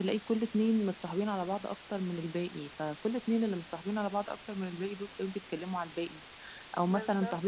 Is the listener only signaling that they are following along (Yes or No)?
Yes